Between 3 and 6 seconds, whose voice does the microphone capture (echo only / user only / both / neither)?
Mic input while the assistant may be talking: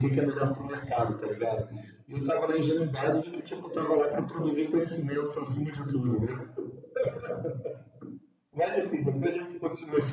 echo only